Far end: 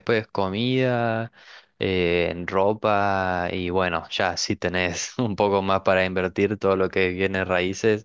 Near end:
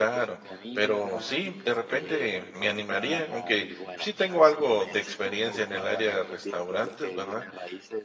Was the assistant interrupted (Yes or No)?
Yes